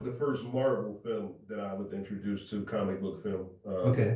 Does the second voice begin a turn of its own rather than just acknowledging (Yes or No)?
No